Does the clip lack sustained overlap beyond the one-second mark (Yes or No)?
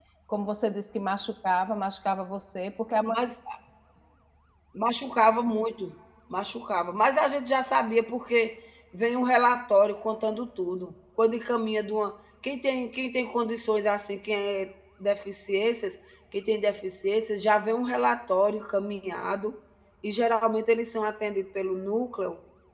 Yes